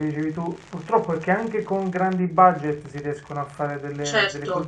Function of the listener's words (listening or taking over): taking over